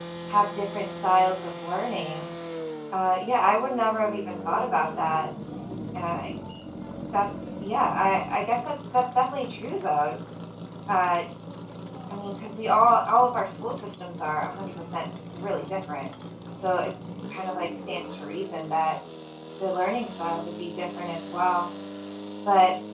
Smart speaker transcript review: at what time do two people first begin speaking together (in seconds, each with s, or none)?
none